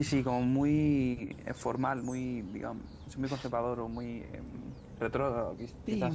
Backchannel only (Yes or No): No